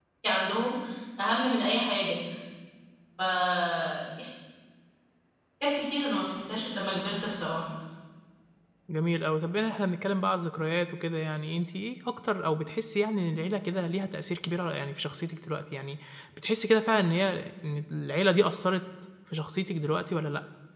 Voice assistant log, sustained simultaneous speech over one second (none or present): none